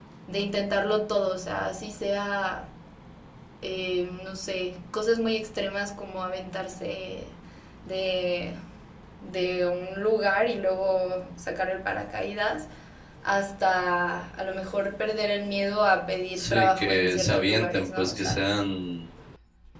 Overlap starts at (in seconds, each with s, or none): 16.3 s